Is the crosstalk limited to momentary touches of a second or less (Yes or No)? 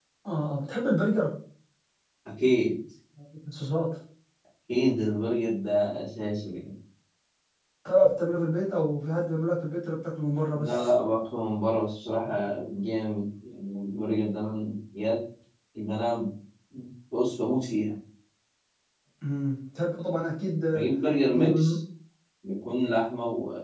Yes